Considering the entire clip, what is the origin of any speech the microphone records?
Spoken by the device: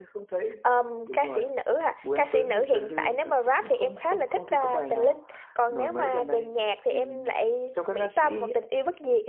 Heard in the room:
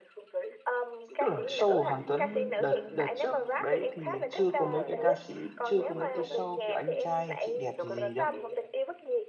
both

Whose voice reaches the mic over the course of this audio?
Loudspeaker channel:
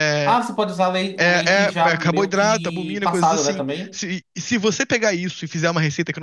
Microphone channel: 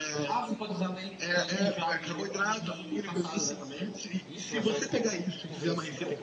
both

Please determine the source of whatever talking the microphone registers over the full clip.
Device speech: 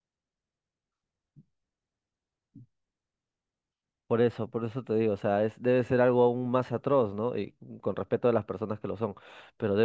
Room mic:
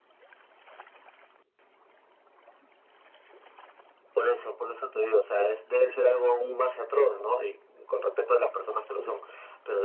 echo only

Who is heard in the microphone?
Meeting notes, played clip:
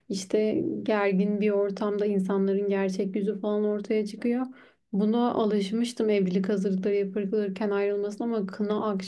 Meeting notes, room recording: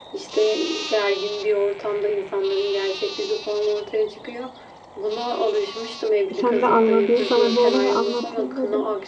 both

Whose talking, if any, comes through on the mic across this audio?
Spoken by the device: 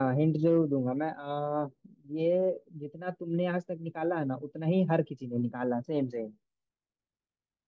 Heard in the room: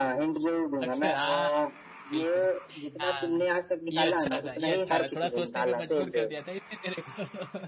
both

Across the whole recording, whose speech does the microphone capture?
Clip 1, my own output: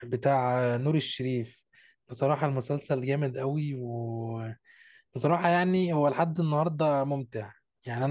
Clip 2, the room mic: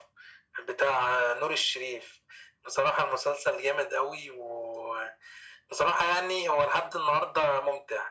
echo only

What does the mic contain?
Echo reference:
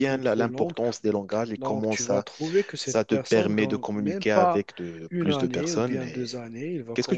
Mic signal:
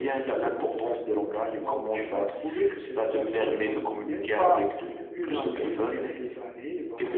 echo only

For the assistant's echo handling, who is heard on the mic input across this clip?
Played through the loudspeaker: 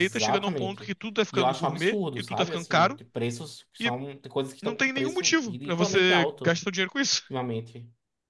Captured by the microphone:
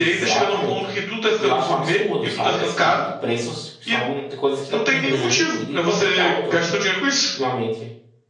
both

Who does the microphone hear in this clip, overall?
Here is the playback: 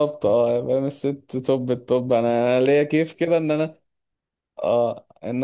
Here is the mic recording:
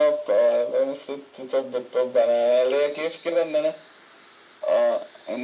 echo only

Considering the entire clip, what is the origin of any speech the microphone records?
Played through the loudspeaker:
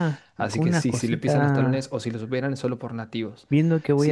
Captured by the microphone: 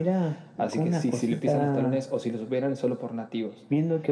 echo only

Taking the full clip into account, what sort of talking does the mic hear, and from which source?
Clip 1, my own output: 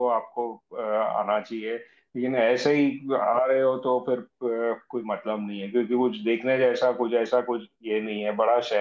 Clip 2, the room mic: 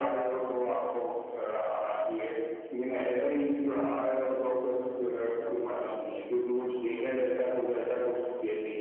echo only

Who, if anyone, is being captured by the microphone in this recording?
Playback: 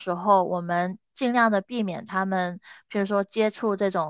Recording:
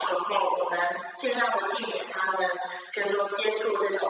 echo only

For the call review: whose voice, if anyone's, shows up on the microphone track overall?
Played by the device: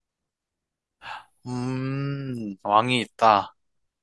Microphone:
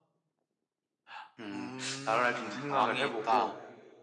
both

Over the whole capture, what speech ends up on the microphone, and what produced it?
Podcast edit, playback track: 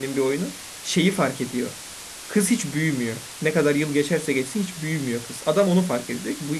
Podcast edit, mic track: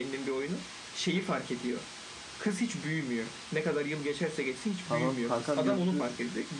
both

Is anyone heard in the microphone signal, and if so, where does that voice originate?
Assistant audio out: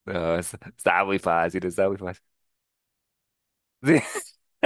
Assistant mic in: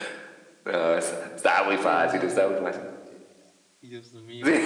both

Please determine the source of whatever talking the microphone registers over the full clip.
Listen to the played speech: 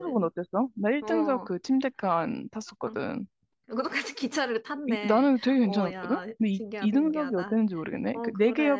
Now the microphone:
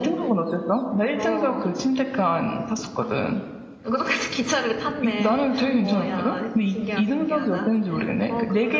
echo only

